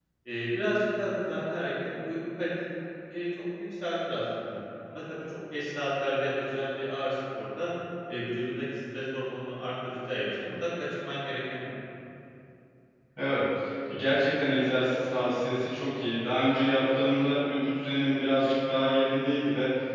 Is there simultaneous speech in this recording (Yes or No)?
No